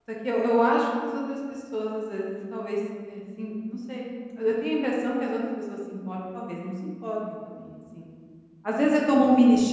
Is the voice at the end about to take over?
No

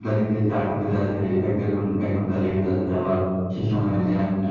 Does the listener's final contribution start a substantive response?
No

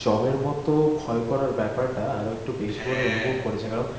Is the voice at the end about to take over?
No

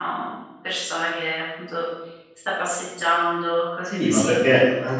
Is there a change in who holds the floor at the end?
Yes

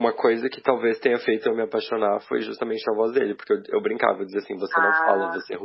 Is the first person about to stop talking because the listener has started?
No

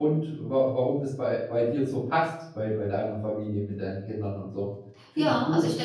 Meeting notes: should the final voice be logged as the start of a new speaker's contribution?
Yes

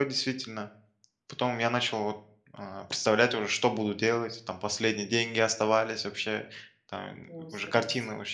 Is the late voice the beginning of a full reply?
No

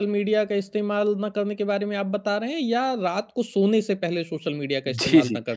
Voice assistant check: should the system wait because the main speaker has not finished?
No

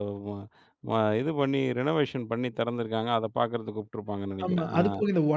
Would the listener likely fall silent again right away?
No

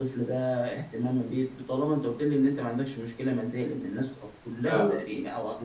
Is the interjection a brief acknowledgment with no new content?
Yes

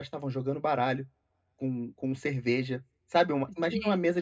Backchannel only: Yes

